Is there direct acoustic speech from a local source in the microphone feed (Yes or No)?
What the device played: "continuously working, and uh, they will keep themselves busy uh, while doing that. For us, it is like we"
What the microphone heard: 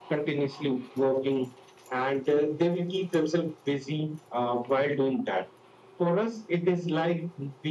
No